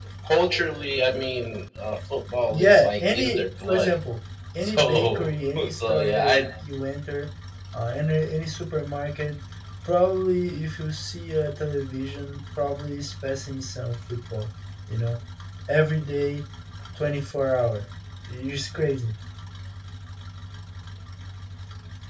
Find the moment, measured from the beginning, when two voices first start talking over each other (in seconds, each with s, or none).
2.5 s